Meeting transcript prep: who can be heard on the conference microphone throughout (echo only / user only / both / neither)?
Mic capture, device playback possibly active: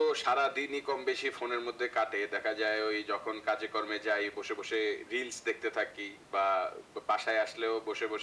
echo only